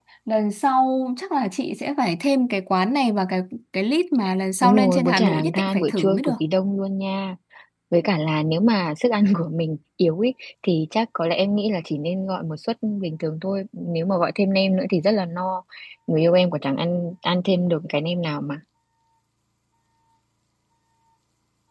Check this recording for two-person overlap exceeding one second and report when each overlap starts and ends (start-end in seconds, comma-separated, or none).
4.6-6.3